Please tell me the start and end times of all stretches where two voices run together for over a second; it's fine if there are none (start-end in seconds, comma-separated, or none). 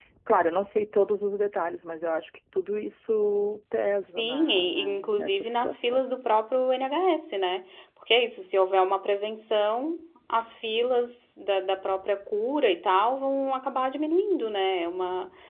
4.1-6.0